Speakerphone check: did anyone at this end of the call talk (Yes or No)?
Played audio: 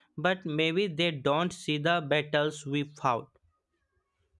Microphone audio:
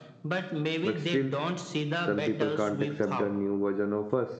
Yes